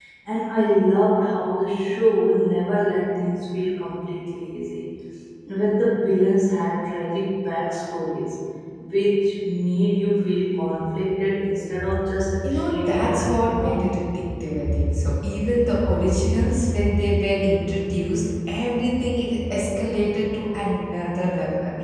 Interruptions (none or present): present